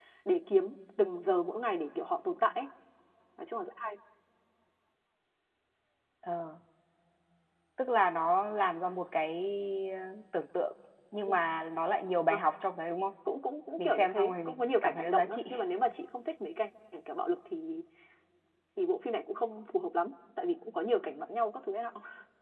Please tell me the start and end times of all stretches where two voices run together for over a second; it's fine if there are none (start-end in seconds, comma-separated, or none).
13.8-15.4